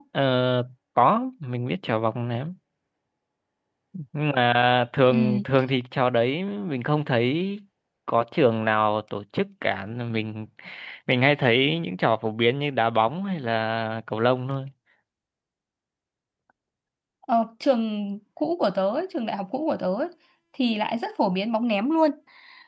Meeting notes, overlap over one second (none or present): none